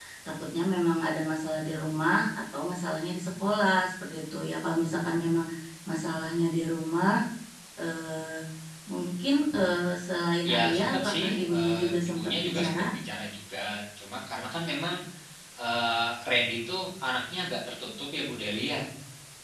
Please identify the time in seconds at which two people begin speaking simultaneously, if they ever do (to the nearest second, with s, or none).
10 s